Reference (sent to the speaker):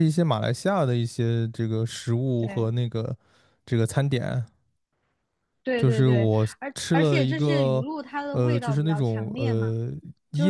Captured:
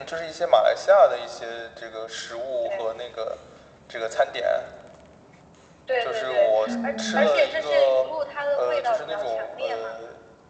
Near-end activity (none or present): present